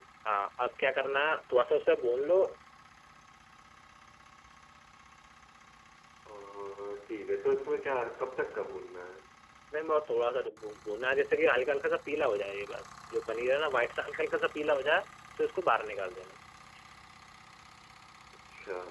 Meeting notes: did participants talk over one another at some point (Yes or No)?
No